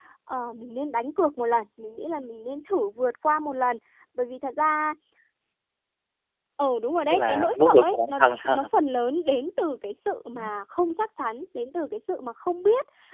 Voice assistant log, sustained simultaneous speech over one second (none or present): present